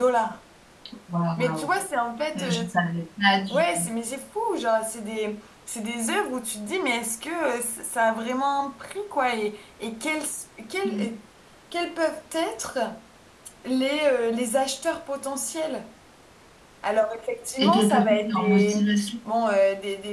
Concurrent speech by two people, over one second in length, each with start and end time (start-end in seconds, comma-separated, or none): 17.6-18.8